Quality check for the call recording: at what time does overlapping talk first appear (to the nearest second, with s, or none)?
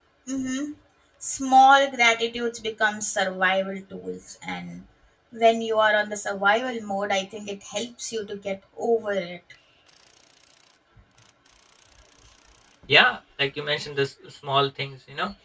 none